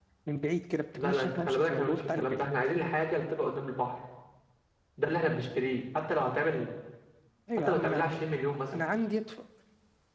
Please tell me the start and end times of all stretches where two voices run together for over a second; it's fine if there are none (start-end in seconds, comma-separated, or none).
0.9-2.5